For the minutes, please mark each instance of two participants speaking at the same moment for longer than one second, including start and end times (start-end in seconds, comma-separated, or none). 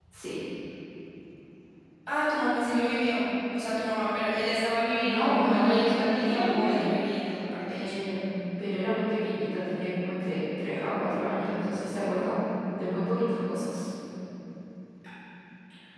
5.0-6.8